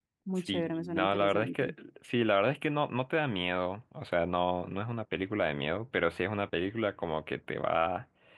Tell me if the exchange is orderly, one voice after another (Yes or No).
No